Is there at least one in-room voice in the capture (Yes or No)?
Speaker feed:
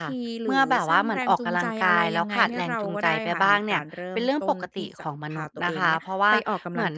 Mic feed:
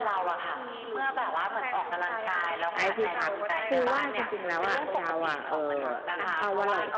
Yes